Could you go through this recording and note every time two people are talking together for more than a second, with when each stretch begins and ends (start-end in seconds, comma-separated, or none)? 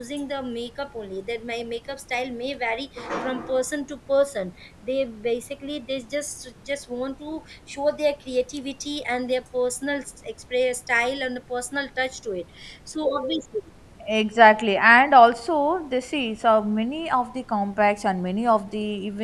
none